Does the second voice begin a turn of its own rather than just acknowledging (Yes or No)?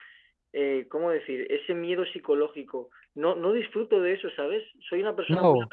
No